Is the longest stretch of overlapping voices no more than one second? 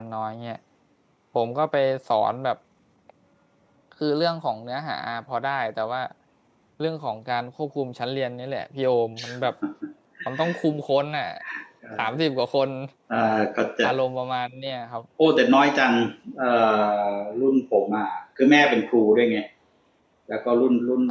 Yes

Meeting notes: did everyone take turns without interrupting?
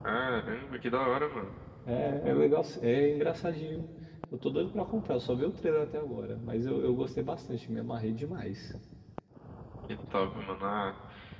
Yes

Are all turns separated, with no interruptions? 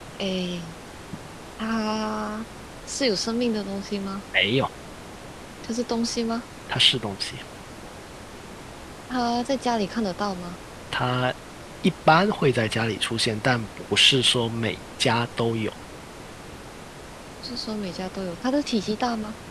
Yes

